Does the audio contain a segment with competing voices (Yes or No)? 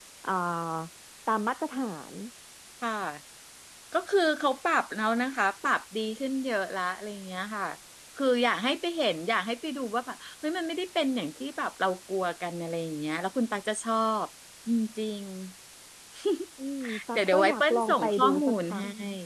Yes